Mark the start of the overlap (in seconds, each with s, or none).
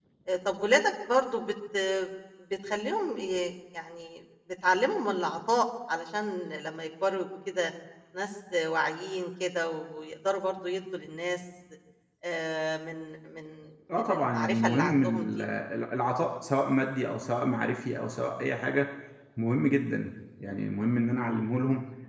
13.9 s